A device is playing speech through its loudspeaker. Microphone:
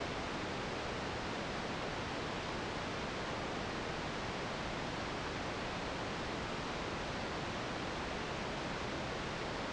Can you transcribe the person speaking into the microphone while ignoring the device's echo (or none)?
none